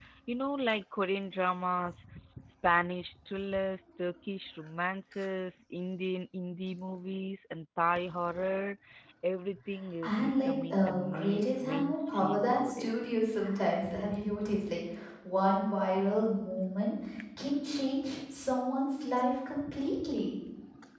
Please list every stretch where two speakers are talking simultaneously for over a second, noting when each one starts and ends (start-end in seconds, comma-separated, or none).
10.0-13.1